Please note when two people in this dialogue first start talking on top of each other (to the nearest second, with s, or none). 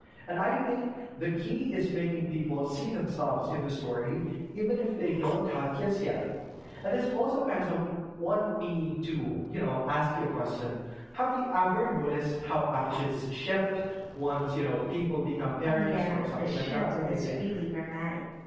16 s